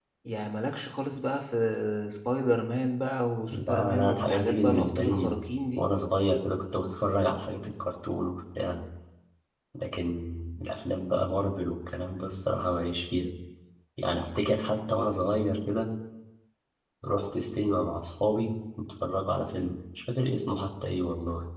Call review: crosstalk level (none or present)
present